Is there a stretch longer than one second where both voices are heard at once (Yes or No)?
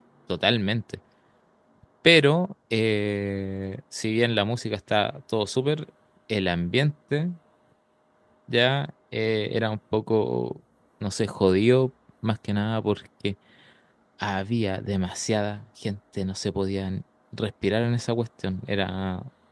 No